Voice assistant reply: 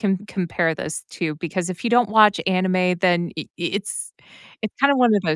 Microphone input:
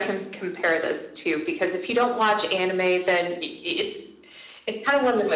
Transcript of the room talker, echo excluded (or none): none